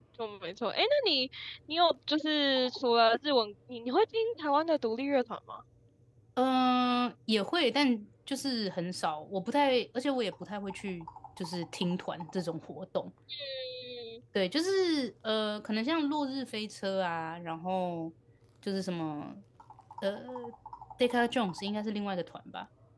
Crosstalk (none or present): none